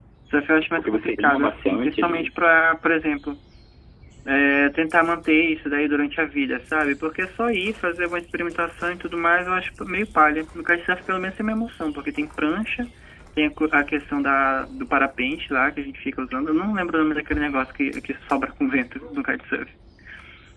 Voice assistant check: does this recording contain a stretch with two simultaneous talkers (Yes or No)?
Yes